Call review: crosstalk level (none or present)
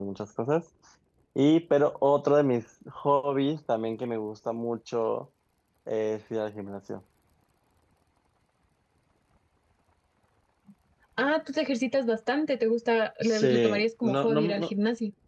present